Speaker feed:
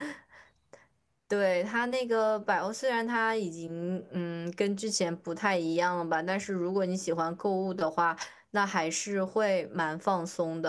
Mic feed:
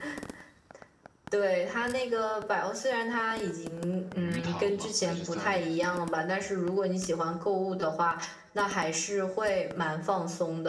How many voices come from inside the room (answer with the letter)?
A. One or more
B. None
A